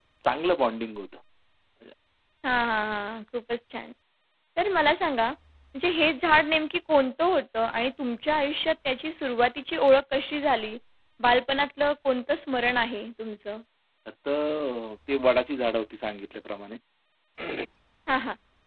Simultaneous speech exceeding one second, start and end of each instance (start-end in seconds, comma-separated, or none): none